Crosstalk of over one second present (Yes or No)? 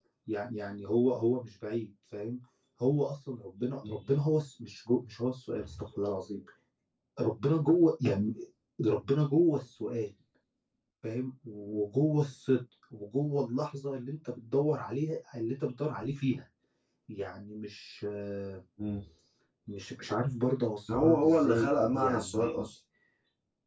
Yes